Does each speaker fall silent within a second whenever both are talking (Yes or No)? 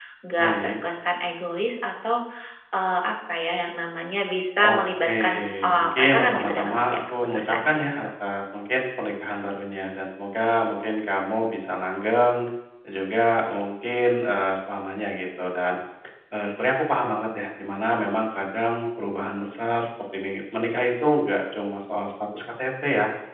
No